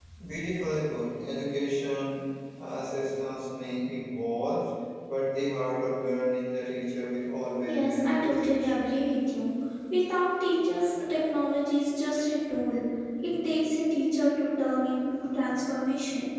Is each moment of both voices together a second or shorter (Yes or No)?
No